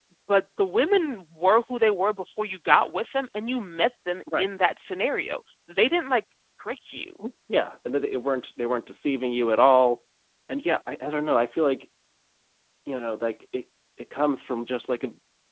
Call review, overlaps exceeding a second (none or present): none